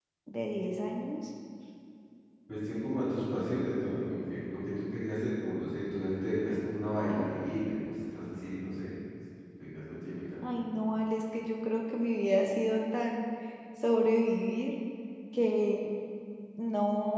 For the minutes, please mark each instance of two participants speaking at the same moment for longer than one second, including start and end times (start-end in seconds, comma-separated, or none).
none